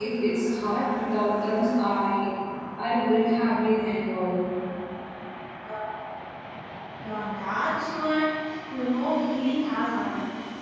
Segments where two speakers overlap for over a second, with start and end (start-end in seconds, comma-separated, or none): none